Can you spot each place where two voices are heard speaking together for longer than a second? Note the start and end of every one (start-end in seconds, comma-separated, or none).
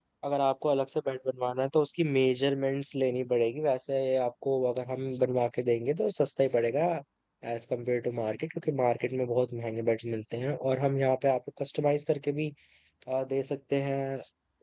none